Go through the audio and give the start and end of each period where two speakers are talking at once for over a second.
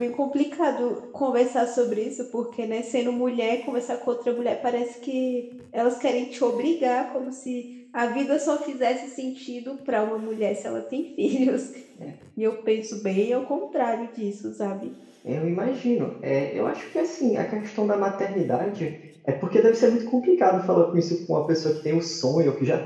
none

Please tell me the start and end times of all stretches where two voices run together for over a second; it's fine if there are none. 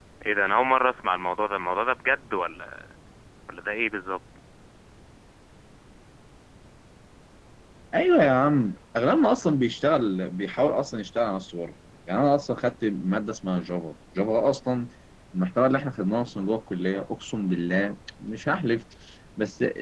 none

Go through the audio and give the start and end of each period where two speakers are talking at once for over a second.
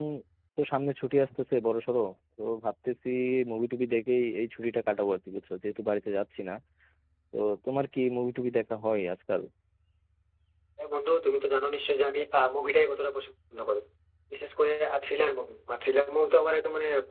none

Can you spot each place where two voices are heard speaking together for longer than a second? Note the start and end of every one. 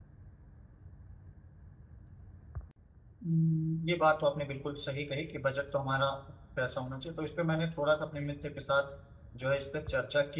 none

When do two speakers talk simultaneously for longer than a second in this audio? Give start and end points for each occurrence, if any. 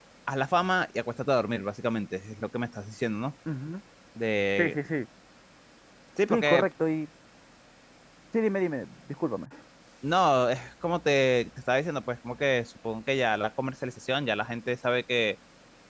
none

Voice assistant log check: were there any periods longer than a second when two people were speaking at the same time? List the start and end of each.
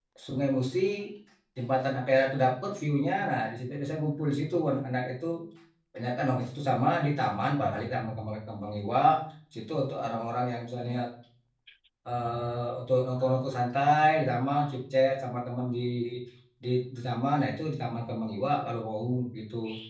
none

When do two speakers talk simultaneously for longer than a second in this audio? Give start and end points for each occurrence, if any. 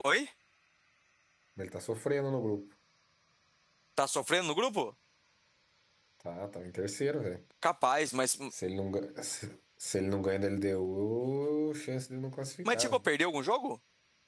none

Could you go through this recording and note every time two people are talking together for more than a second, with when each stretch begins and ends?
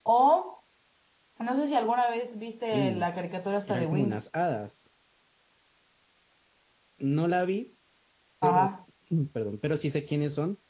2.7-4.3

